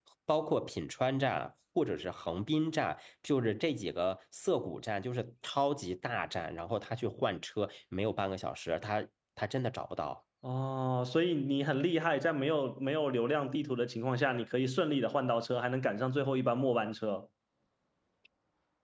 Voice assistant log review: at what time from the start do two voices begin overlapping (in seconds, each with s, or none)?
none